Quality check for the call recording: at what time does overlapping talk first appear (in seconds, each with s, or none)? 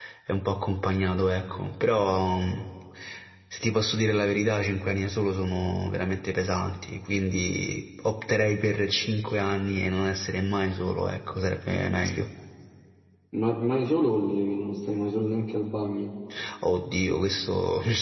none